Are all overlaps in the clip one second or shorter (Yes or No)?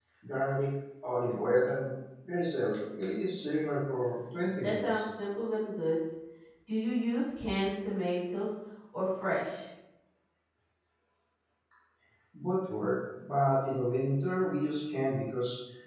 Yes